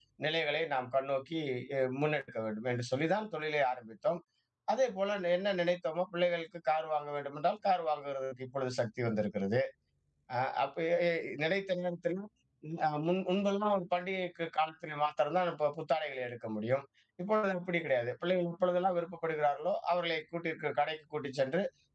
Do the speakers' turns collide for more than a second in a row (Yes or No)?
No